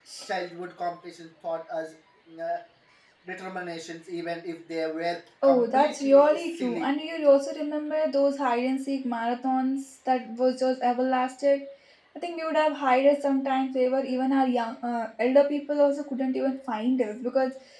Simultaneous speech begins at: 5.4 s

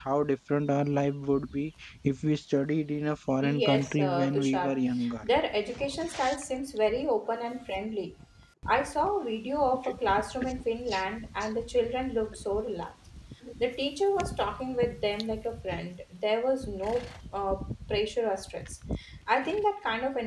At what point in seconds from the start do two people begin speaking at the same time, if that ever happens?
3.4 s

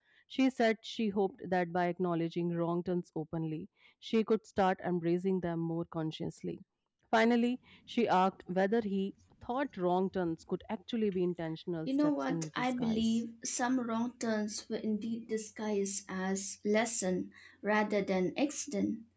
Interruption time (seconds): 11.9 s

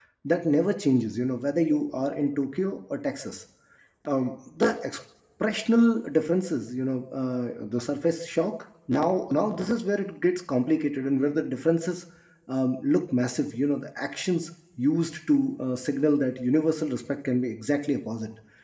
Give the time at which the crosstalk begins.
none

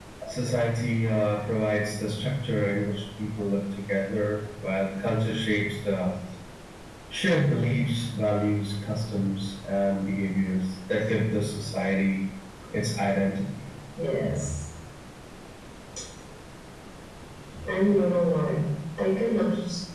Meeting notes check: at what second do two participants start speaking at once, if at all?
none

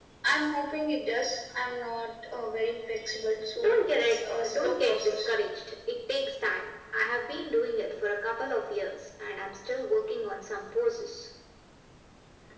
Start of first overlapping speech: 3.5 s

